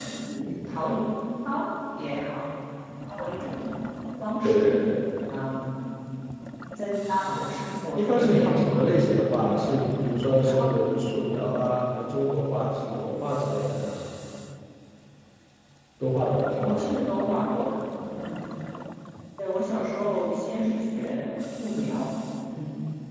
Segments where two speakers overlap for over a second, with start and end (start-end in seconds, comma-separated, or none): 8.0-9.2